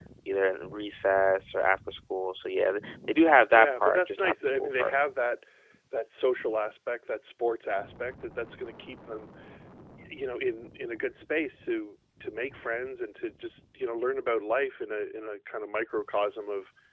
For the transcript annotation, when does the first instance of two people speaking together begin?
3.5 s

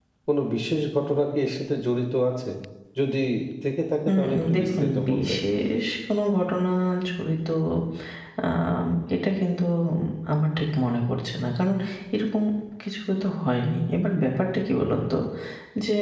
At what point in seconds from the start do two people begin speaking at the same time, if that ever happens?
4.1 s

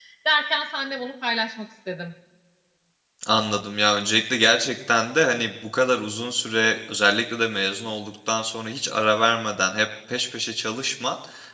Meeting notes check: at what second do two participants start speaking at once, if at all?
none

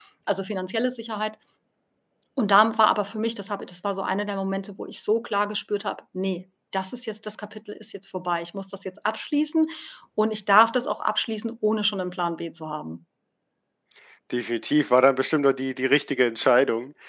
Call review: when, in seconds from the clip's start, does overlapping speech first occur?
none

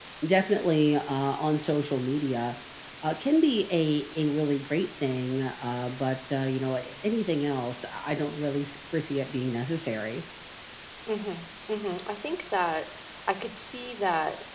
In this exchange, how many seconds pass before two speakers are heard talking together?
none

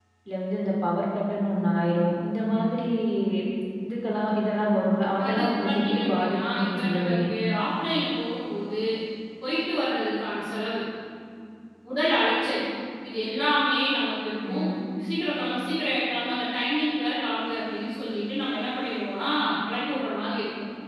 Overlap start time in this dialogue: 5.2 s

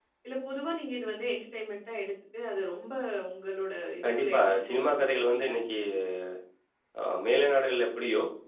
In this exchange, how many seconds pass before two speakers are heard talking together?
4.0 s

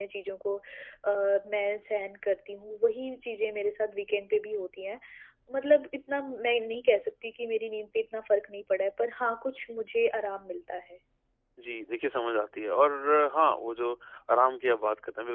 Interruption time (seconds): none

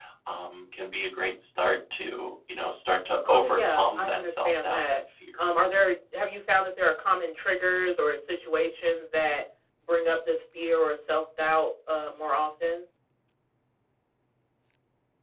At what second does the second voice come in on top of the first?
3.2 s

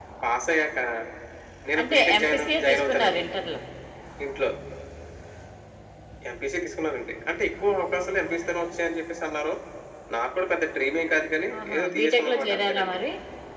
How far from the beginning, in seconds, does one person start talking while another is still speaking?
1.8 s

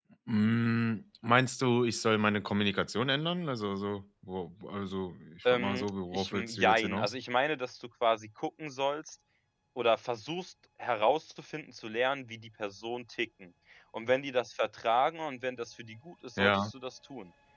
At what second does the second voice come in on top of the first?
5.5 s

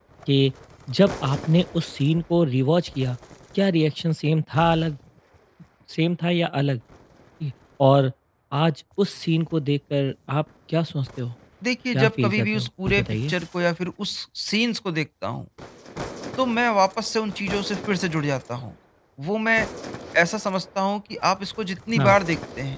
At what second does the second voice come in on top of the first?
11.9 s

